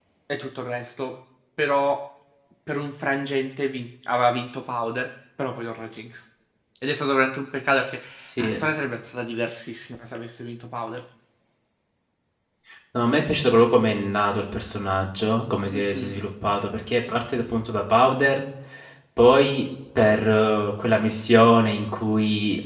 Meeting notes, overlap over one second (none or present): none